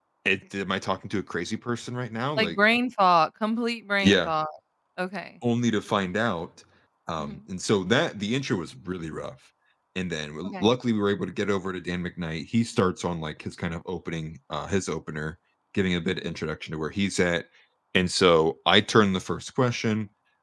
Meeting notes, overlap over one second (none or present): none